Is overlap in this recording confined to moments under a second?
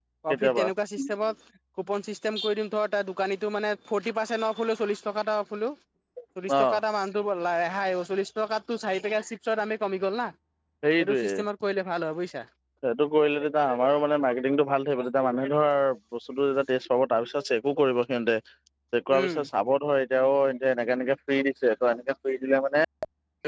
Yes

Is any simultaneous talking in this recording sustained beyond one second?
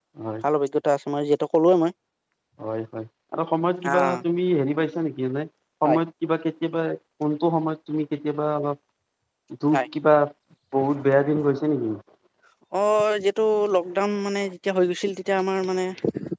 No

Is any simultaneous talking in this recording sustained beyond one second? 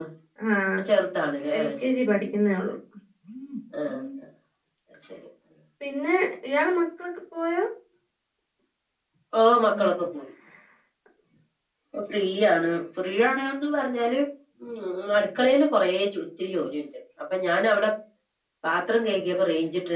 No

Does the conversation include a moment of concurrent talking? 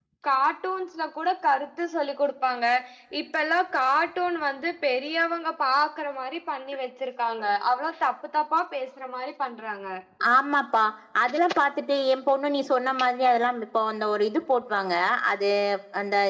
No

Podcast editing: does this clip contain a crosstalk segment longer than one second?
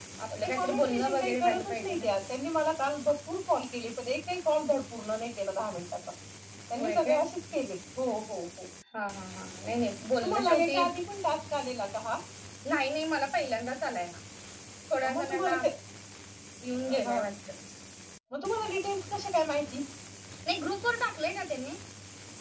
Yes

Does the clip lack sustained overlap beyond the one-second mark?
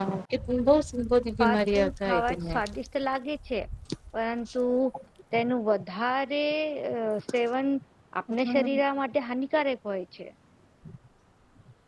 No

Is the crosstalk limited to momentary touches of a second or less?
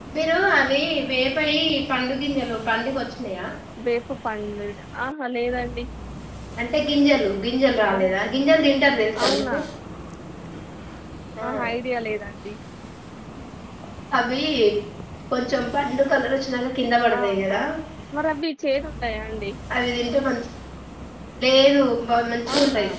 Yes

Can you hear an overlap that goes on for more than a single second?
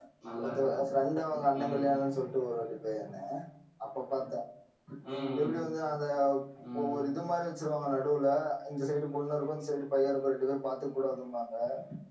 No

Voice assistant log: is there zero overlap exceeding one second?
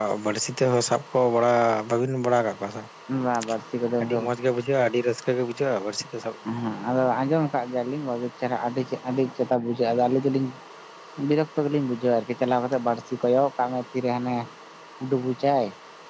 Yes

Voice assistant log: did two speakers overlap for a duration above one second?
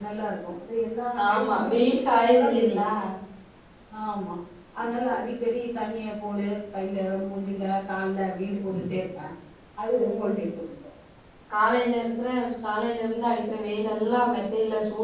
Yes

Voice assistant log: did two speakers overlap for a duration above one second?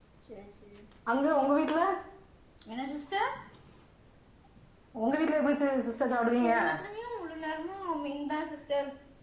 No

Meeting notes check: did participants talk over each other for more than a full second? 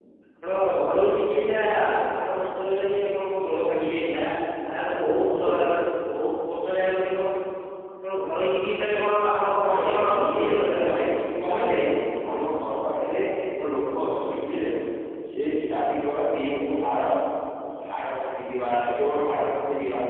Yes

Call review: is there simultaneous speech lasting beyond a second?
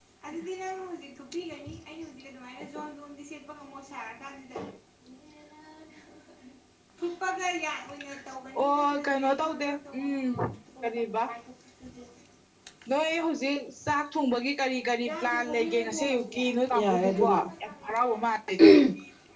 Yes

